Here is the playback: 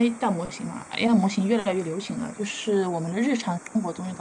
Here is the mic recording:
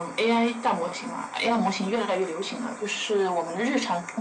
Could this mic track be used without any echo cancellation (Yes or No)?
No